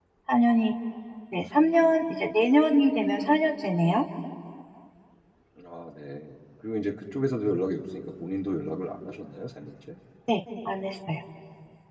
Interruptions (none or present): none